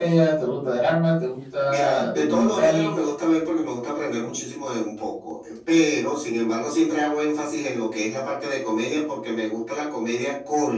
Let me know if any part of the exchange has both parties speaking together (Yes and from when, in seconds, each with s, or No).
Yes, from 1.7 s